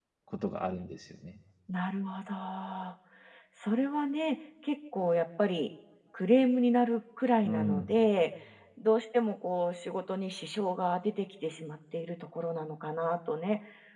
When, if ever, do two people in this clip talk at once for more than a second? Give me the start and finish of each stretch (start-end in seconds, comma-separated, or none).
none